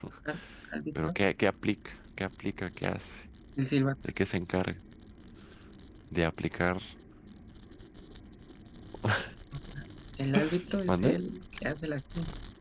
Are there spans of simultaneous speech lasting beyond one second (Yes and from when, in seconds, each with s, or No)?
No